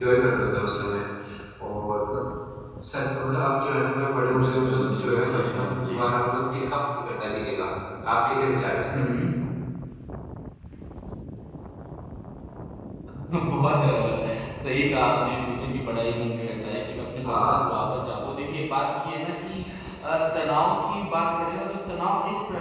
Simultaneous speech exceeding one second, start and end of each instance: 4.4-6.0

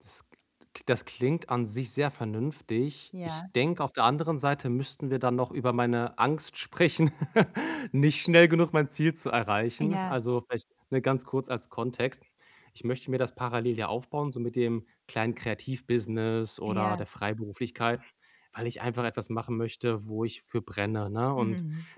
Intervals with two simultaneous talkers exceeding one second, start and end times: none

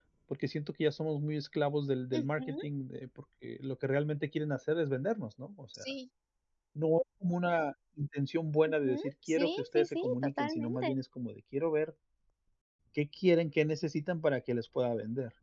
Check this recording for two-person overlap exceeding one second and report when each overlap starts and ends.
8.8-11.0

